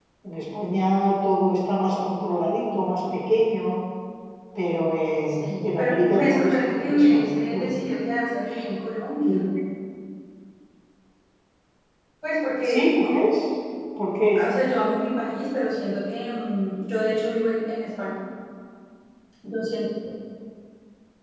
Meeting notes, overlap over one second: present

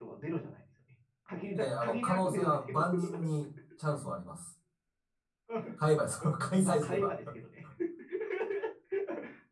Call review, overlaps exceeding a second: present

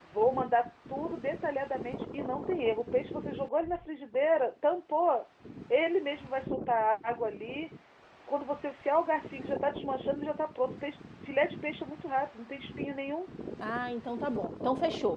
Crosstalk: none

